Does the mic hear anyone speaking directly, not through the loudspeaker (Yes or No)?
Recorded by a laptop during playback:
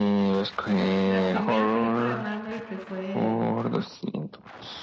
Yes